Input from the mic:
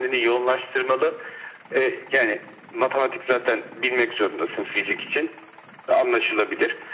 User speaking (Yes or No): No